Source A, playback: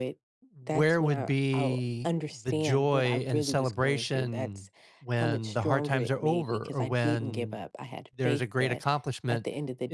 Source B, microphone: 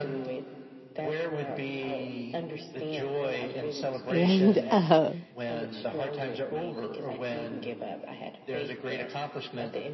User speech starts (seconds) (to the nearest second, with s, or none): 4 s